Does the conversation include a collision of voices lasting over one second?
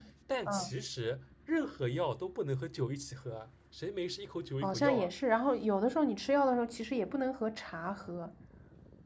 No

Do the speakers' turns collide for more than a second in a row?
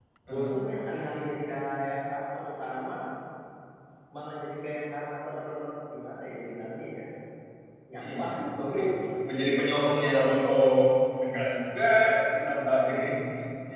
No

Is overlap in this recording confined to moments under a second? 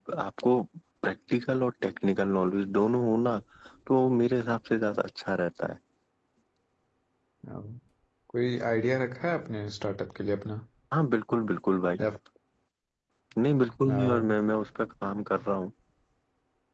Yes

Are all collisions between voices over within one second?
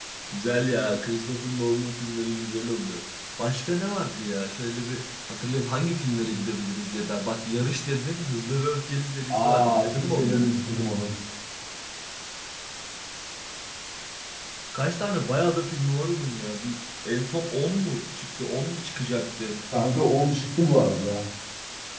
No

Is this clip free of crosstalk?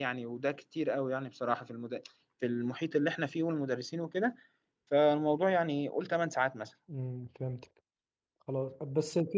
Yes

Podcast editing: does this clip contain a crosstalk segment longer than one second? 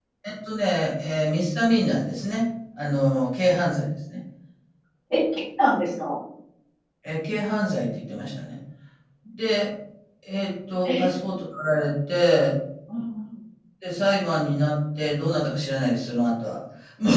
No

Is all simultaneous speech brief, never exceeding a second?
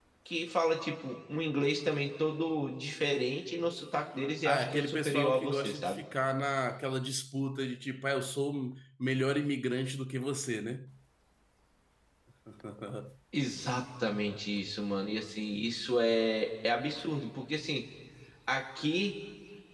No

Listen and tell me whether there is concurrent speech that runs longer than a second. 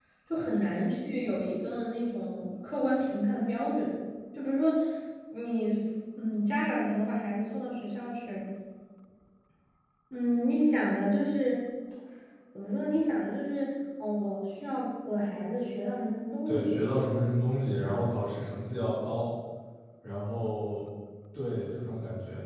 No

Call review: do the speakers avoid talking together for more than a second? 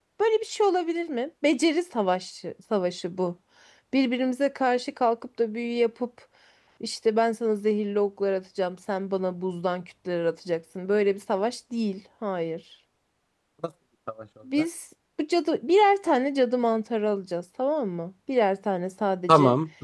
Yes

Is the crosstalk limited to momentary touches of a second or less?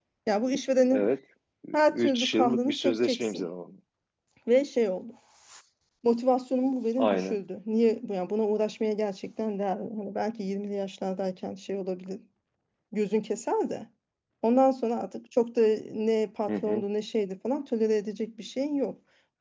No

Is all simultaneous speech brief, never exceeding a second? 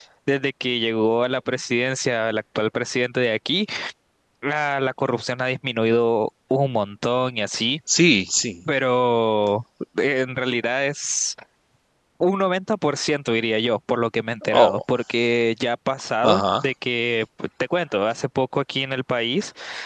Yes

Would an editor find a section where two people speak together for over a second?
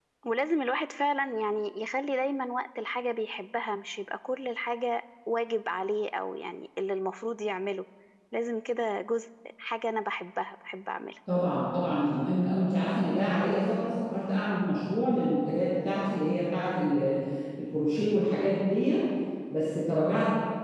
No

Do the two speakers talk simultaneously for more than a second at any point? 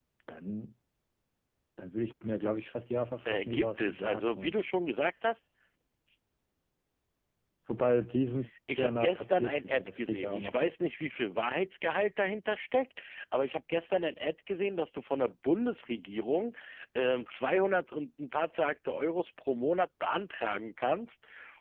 Yes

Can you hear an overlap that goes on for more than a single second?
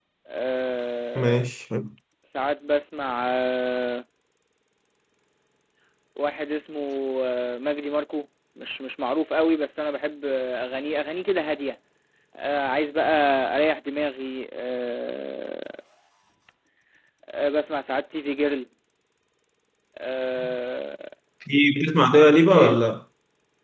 No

